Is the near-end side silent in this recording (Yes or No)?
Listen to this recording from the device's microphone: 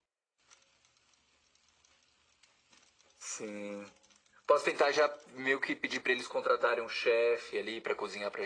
Yes